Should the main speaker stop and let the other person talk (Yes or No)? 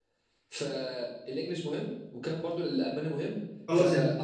Yes